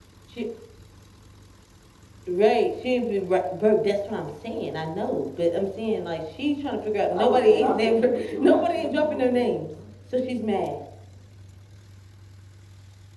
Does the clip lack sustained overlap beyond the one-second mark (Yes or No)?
No